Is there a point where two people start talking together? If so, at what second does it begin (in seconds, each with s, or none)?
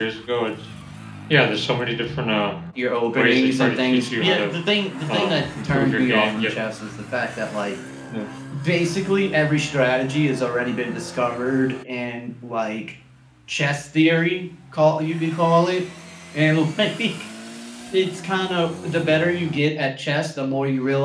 3.1 s